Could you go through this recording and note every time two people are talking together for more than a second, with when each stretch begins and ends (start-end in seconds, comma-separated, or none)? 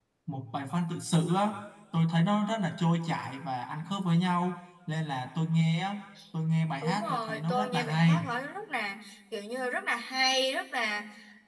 6.8-8.2